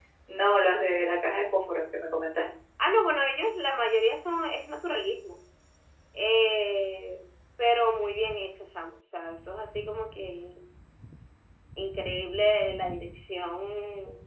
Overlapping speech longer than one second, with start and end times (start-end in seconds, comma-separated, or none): none